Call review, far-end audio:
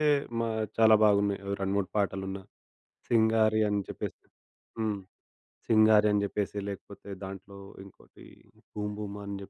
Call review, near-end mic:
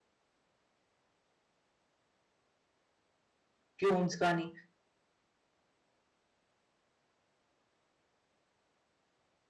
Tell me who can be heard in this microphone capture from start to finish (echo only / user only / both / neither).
user only